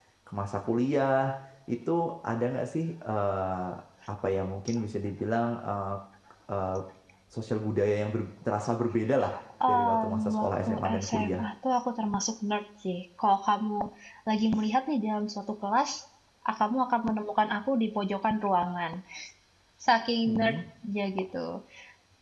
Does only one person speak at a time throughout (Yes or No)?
No